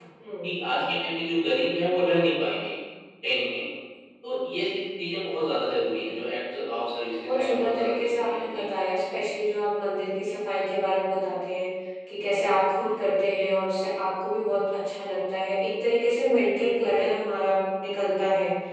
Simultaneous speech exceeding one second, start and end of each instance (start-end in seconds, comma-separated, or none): 7.2-8.7